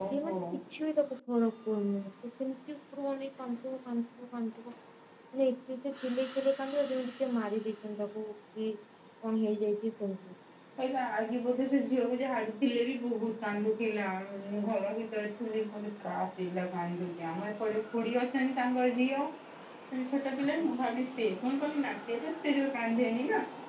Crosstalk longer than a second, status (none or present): none